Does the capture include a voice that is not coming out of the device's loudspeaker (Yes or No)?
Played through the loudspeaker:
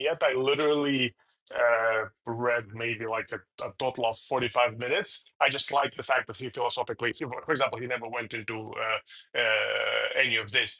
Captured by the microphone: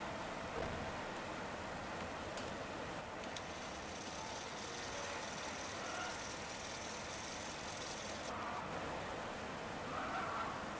No